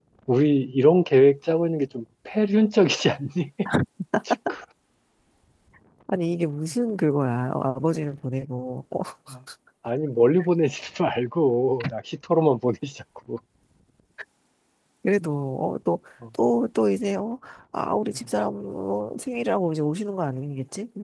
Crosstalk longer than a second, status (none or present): none